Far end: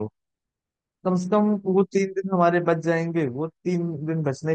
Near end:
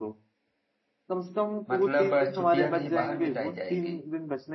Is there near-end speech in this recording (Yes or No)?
Yes